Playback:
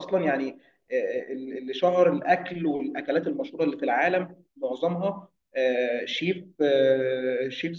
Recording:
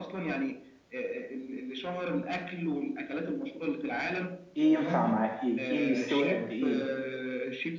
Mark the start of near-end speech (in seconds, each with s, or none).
4.5 s